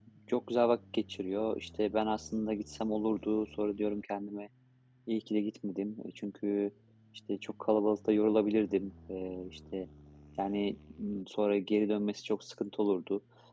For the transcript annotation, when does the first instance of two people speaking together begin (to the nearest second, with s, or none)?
none